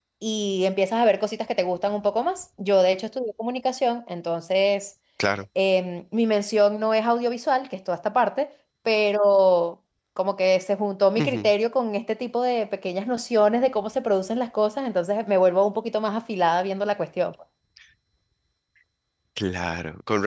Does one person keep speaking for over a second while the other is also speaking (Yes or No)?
No